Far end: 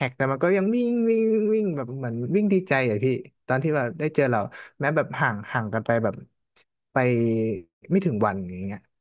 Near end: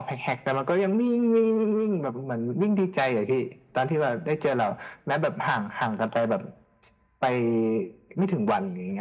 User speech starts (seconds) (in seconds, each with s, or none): none